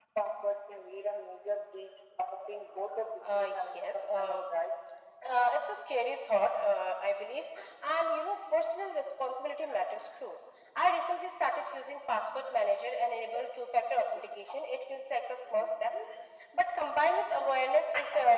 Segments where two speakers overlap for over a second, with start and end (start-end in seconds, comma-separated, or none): 3.2-4.4